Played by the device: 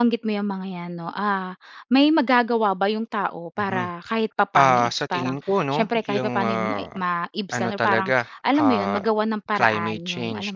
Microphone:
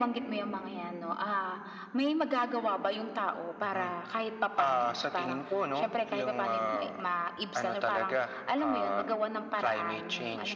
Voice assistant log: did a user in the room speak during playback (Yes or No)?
No